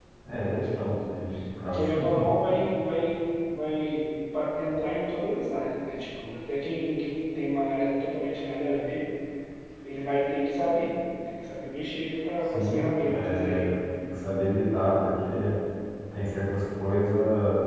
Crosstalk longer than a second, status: present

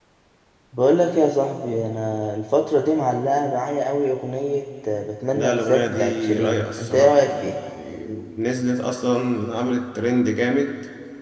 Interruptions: present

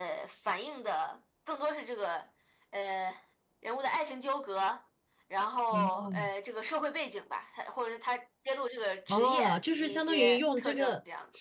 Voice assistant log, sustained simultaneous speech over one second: present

